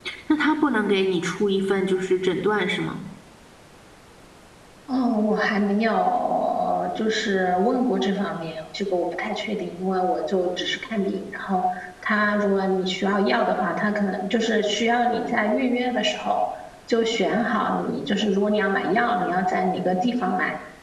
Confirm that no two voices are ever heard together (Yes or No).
Yes